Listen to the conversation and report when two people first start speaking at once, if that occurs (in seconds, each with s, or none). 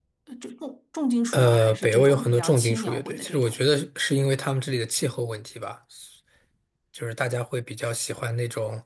1.3 s